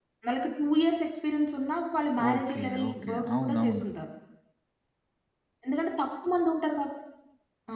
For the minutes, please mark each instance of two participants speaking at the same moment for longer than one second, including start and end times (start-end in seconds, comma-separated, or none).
2.3-3.8